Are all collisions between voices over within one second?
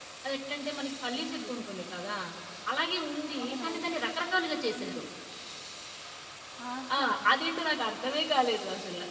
Yes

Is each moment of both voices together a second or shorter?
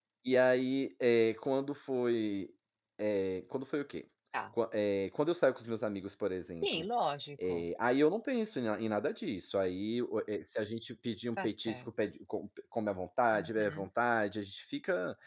Yes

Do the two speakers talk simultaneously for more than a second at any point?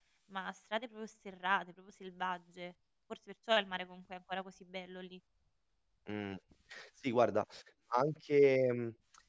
No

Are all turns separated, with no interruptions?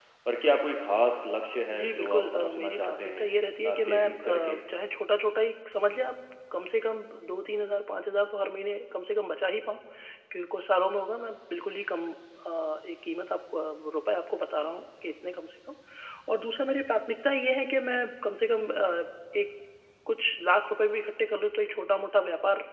No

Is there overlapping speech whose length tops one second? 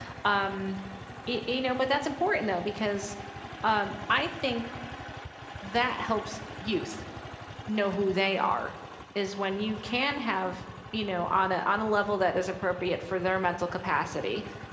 No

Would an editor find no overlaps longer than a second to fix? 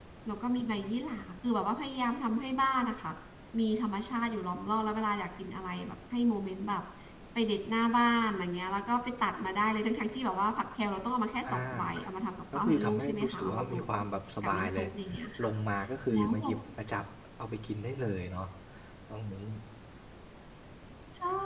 No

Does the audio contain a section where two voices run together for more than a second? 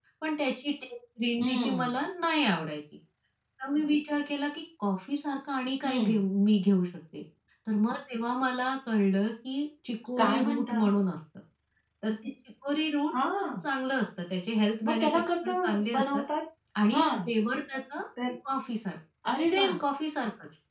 Yes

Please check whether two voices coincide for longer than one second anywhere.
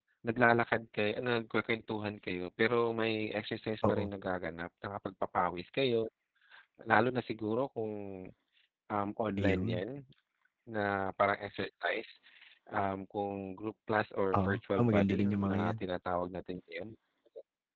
Yes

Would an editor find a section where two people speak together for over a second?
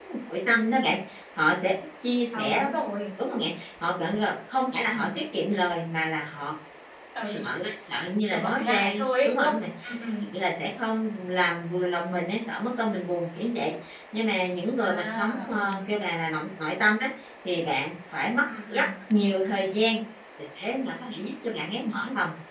Yes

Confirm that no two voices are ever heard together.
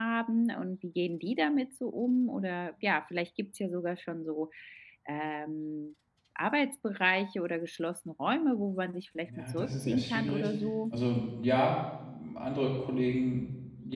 No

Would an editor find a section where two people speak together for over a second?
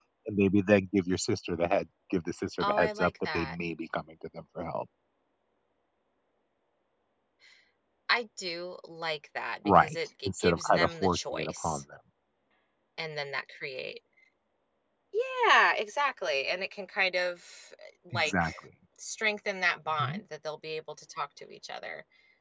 Yes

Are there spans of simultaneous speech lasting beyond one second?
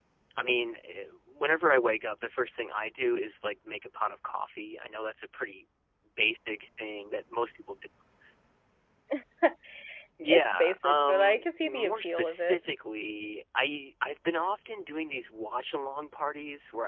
Yes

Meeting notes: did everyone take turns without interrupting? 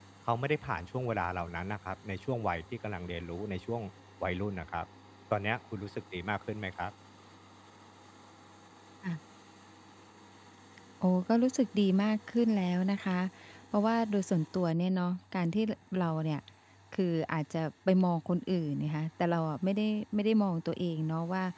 Yes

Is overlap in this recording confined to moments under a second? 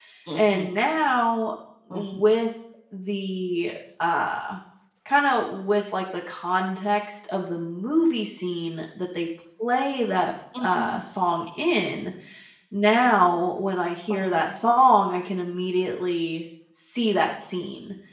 Yes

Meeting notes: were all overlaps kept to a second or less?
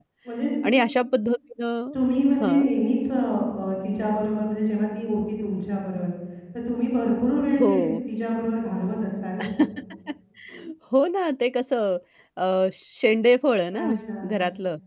Yes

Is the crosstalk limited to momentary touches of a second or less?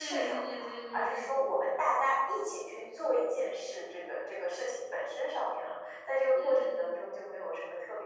No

